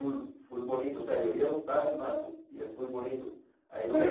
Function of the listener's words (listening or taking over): listening